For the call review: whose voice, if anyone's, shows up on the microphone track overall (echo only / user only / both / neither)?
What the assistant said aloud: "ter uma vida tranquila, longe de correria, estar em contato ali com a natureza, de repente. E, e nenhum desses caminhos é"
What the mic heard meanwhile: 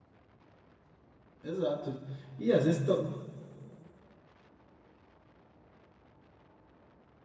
user only